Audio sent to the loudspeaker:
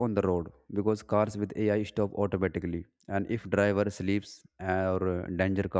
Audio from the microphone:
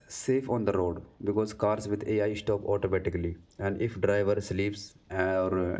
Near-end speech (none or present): none